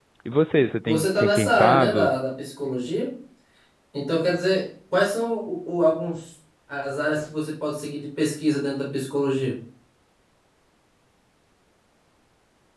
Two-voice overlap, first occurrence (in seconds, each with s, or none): 0.8 s